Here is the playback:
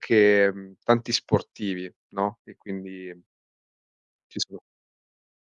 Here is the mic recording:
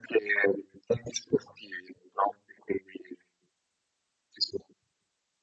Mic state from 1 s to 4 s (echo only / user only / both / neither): echo only